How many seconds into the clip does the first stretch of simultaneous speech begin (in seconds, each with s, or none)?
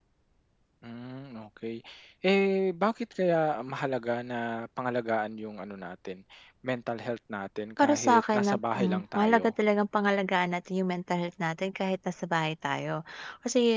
7.8 s